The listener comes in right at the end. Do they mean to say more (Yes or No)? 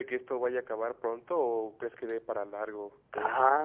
Yes